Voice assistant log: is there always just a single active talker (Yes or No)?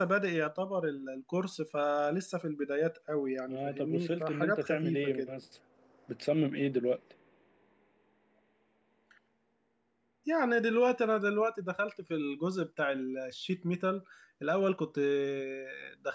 No